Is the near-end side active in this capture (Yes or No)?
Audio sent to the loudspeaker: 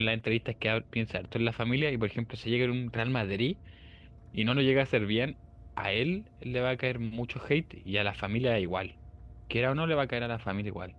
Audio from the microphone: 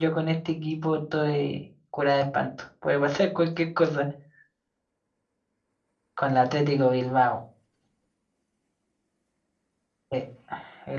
Yes